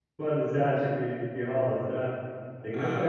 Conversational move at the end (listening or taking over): taking over